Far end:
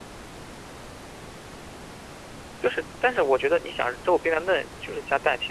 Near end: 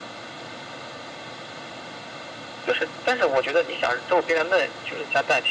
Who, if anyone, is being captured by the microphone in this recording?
echo only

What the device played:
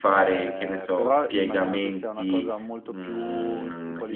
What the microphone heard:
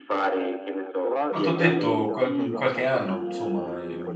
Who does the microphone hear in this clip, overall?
both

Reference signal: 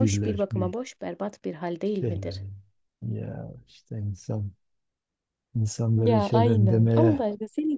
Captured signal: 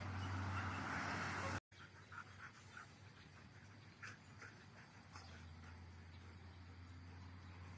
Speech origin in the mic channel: neither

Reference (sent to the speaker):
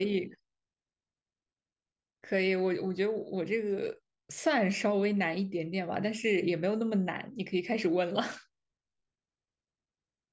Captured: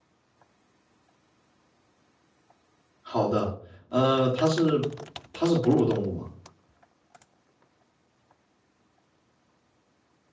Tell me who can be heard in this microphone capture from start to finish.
user only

